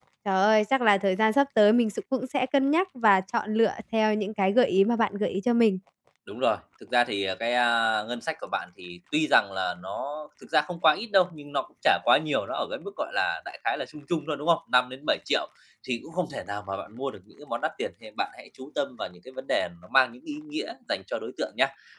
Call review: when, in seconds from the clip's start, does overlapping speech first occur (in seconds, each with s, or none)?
none